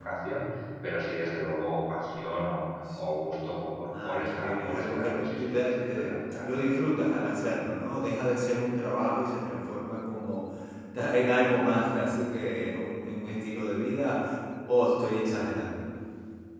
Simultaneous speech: Yes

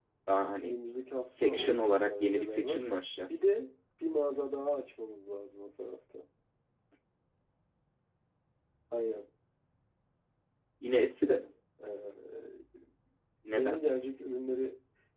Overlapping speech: Yes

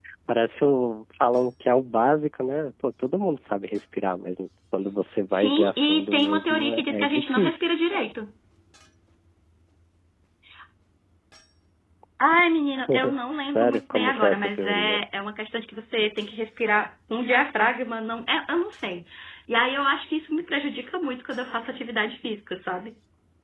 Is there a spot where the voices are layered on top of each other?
Yes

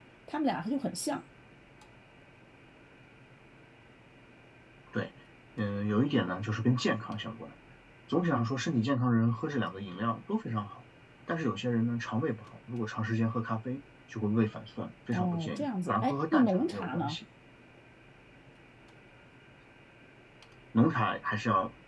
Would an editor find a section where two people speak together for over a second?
Yes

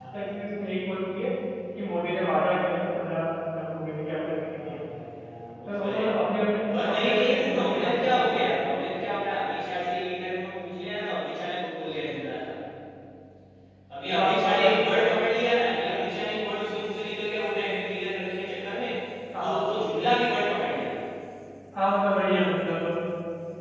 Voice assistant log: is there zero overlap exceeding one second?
No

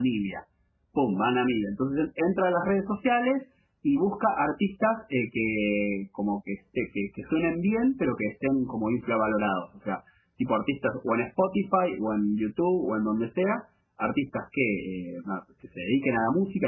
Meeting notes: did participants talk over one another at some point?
No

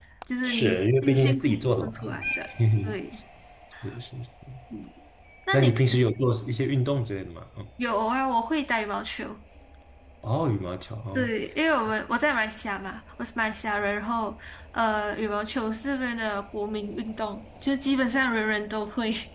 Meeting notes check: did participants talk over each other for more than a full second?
Yes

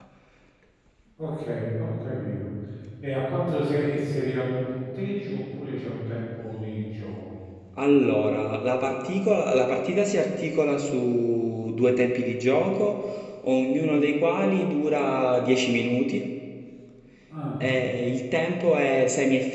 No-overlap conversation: Yes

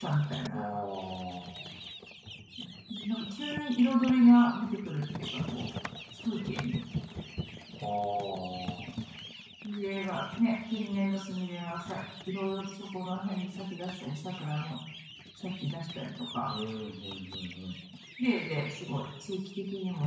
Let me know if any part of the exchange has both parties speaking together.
No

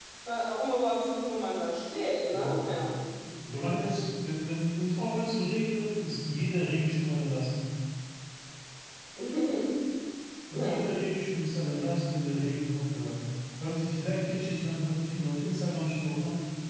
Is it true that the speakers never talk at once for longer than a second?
Yes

